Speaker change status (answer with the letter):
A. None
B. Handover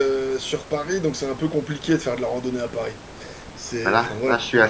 B